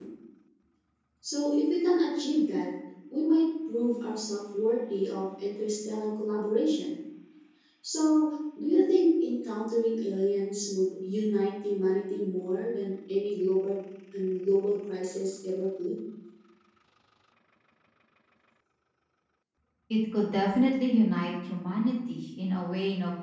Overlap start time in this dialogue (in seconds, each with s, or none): none